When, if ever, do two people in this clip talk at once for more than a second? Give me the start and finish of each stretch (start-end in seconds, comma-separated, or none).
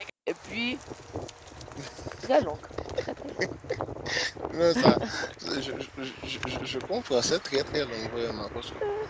none